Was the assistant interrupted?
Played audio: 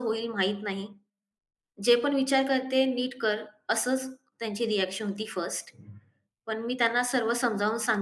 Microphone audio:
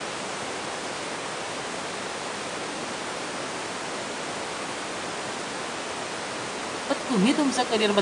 Yes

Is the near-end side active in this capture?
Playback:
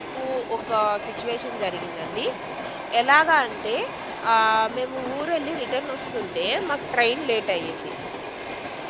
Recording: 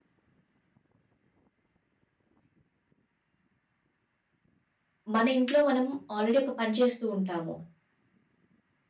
Yes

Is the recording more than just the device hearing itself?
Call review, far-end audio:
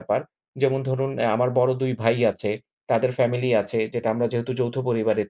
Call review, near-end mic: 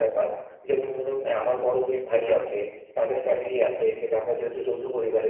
Yes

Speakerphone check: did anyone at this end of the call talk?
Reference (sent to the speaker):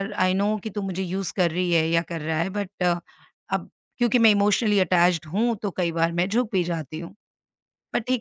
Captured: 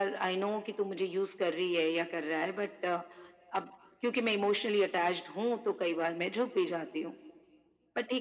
No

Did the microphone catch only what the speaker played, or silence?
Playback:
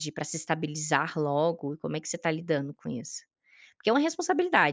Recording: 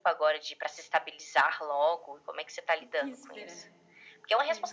No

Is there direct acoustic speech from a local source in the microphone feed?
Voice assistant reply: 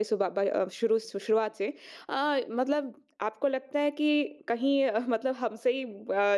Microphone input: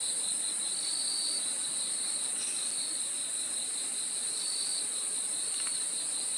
No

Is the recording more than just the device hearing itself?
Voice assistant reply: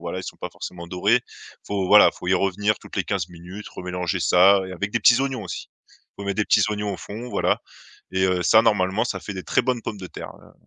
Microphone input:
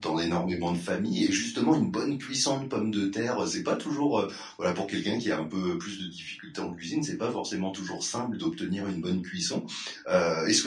Yes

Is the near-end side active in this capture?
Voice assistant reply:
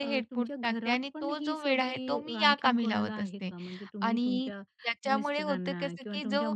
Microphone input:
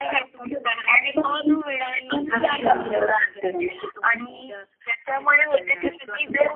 Yes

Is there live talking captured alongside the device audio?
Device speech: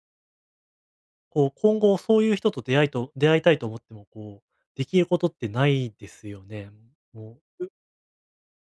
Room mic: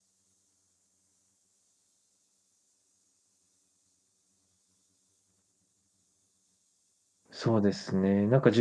Yes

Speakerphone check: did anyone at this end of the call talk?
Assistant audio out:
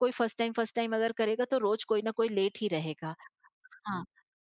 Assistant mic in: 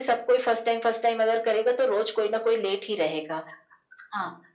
No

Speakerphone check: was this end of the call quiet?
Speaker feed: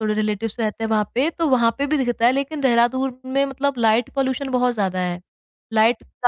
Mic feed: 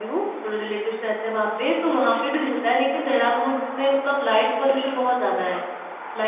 Yes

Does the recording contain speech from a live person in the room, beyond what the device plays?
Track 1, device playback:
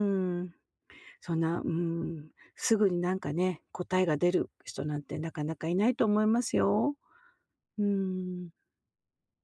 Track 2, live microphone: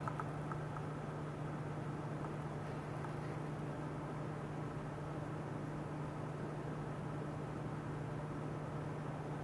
No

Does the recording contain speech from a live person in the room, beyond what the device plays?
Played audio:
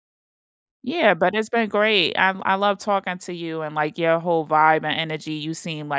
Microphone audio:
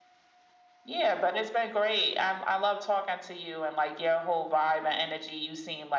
No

